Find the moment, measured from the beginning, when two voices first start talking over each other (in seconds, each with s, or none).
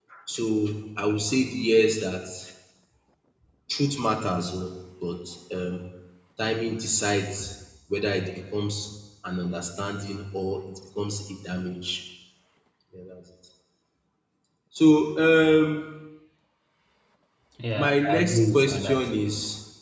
17.8 s